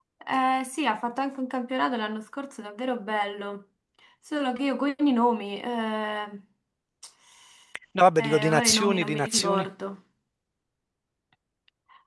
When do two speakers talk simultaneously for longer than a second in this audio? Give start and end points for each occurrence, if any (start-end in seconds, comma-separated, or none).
8.2-9.7